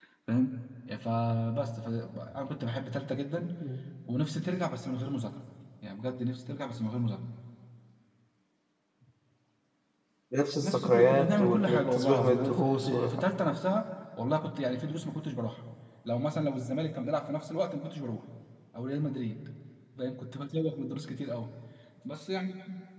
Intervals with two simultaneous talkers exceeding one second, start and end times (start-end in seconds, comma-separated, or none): 10.6-13.1